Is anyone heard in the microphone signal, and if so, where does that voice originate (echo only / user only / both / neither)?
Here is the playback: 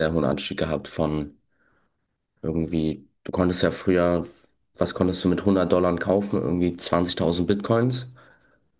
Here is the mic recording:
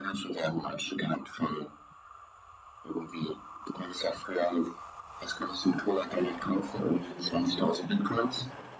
echo only